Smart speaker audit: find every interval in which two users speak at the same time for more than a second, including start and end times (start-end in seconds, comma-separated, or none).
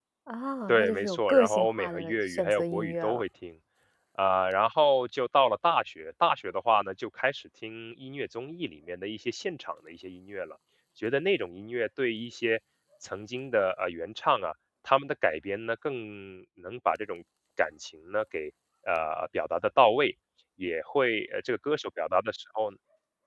0.7-3.2